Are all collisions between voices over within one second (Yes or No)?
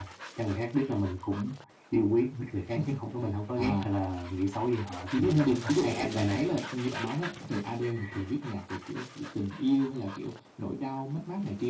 No